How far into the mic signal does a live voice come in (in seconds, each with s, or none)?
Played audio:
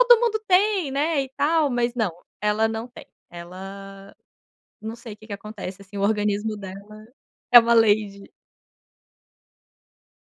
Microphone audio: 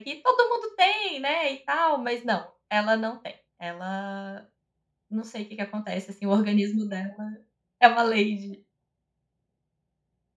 none